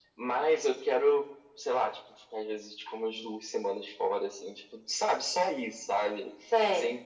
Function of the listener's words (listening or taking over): listening